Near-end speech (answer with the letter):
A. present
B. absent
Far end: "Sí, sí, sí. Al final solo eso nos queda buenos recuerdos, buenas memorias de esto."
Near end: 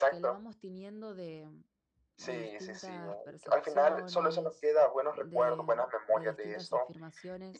A